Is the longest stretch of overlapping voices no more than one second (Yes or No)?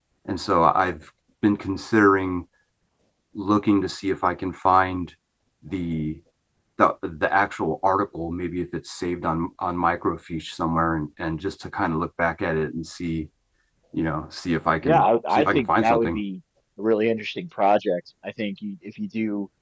No